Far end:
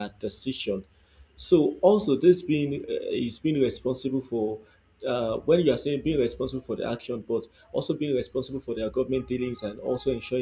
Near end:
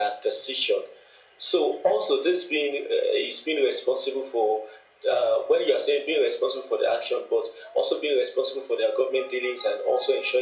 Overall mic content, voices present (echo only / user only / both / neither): echo only